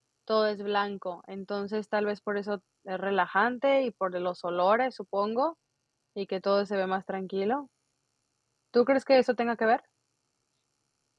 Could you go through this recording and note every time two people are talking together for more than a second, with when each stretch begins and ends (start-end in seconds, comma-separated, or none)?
none